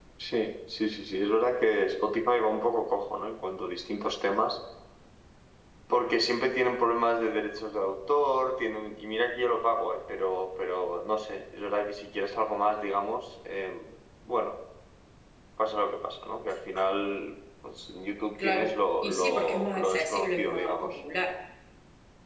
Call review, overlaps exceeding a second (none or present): present